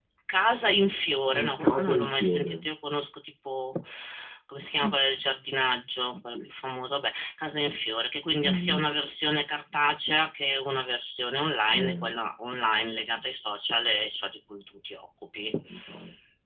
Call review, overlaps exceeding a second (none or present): present